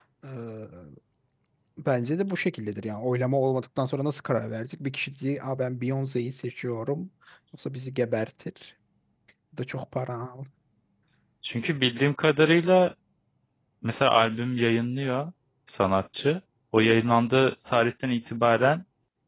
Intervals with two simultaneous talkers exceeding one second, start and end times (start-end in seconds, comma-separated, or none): none